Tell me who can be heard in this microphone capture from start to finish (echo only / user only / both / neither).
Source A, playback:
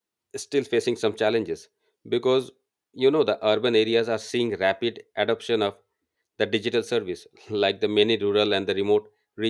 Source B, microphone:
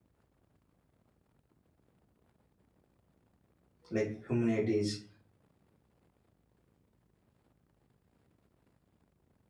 user only